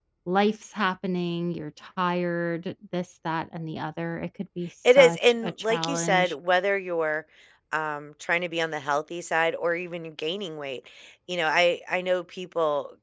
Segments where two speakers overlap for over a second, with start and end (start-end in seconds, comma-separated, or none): 4.9-6.3